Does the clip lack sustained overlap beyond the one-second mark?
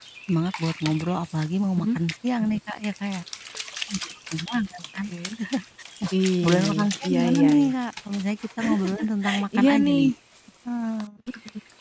No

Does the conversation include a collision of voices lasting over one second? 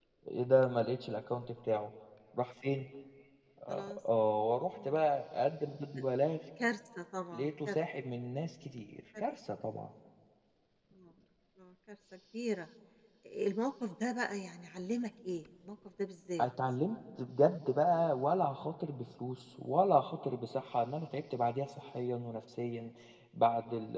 No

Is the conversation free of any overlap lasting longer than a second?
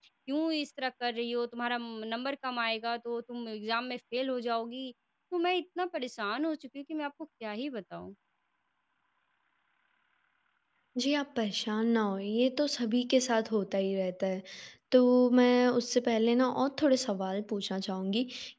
Yes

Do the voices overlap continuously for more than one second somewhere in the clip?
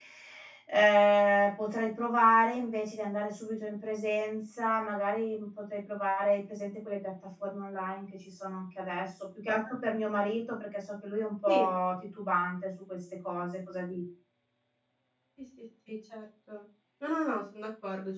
No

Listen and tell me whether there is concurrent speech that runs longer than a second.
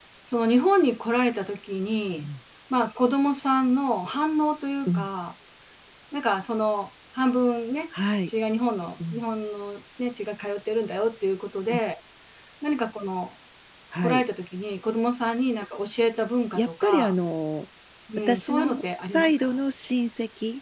Yes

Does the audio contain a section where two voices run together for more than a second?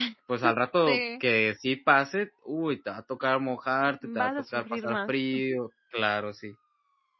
Yes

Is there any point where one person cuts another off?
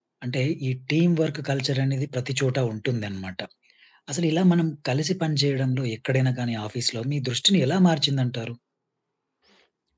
No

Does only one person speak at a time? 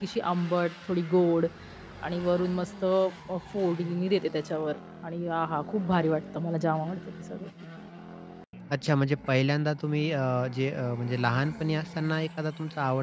Yes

